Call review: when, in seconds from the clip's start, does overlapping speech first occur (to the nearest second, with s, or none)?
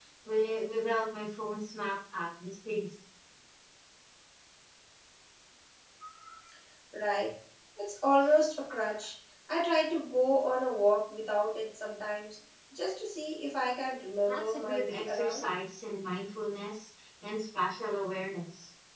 14 s